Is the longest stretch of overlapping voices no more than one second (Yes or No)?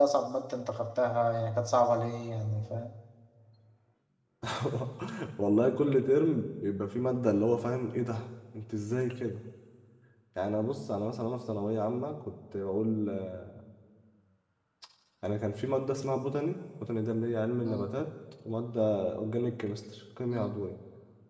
Yes